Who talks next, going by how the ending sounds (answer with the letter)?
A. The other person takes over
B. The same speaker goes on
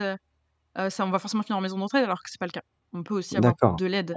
A